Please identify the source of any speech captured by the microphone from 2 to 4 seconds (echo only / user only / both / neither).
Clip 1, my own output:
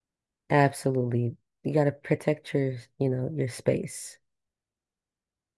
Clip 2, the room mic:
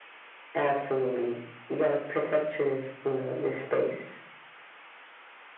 echo only